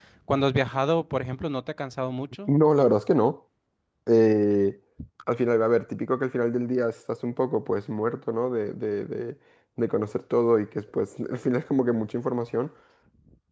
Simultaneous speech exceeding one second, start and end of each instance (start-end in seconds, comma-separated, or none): none